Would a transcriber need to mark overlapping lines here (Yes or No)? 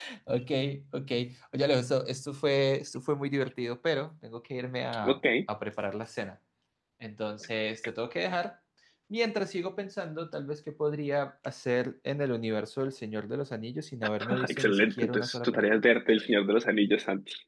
Yes